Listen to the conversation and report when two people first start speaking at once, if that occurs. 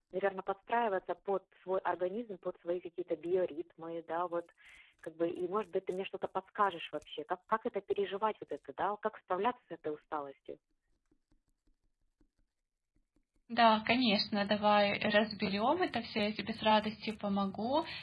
none

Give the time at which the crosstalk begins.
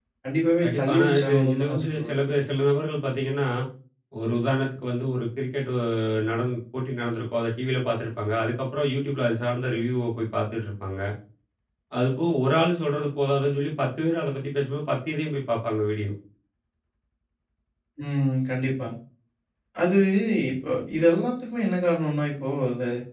0.6 s

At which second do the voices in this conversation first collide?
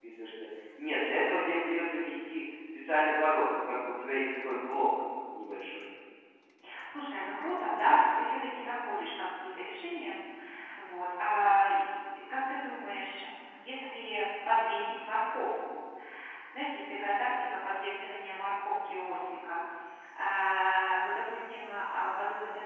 none

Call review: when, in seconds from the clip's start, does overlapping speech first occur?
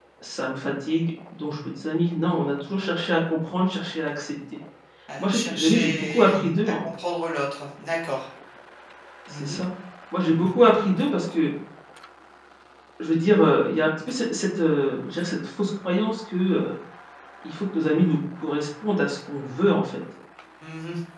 5.2 s

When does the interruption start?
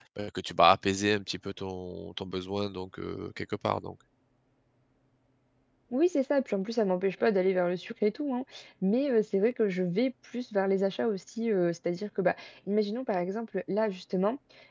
none

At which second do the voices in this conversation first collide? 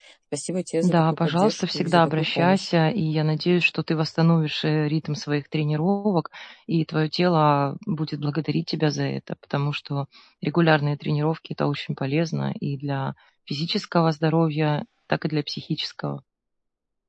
0.8 s

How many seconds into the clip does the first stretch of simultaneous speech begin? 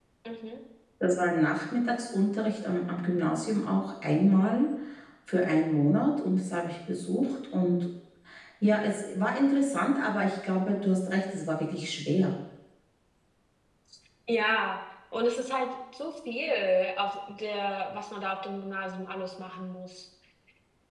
none

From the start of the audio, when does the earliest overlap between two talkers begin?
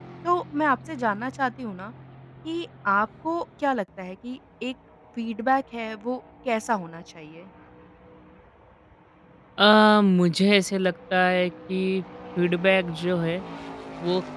none

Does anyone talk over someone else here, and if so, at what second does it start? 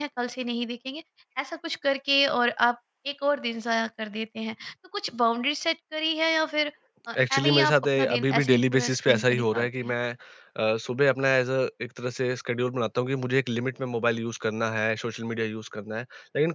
7.3 s

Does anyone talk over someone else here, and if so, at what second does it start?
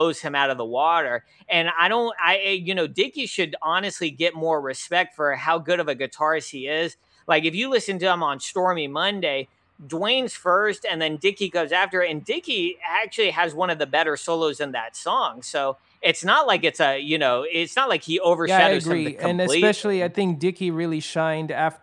18.5 s

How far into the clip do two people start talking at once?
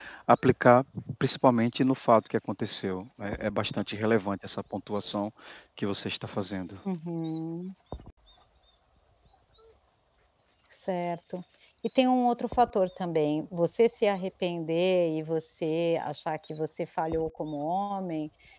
none

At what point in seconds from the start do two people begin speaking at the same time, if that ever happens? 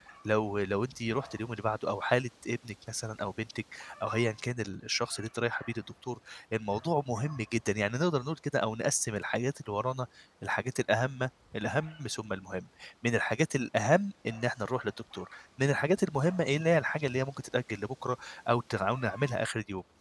none

